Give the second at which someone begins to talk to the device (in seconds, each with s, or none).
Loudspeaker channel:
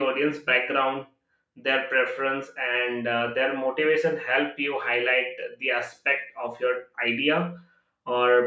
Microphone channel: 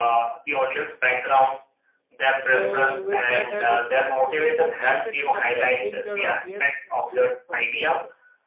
2.3 s